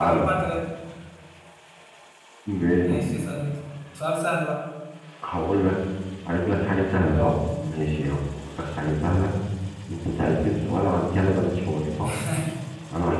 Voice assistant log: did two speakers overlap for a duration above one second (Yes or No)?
No